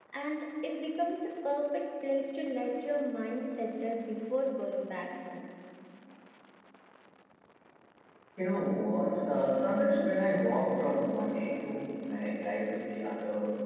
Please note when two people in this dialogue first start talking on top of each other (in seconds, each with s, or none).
none